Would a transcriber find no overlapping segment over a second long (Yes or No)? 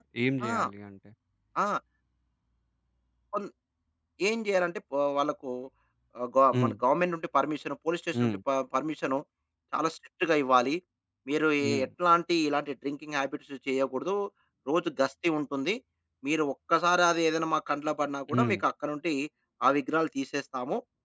Yes